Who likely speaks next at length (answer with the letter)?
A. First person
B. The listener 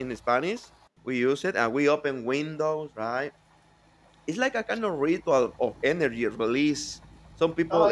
A